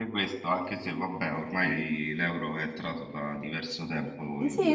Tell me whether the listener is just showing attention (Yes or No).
No